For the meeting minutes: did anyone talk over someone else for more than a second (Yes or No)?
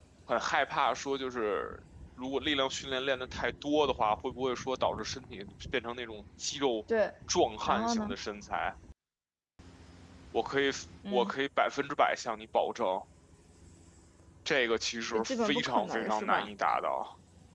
Yes